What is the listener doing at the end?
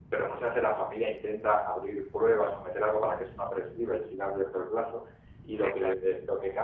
listening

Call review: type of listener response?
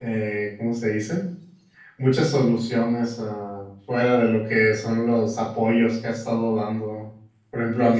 listening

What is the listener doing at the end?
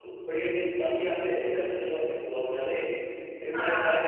listening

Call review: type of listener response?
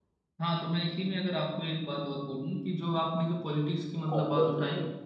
listening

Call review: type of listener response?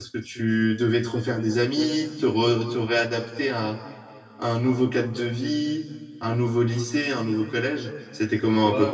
taking over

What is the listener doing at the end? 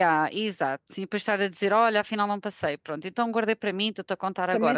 taking over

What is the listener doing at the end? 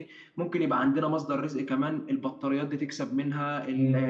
taking over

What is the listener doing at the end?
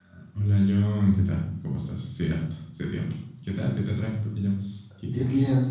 taking over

